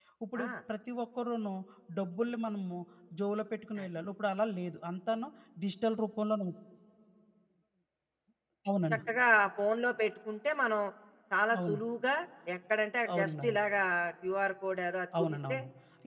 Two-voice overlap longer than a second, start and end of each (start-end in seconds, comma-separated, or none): none